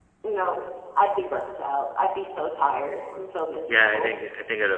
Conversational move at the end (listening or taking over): taking over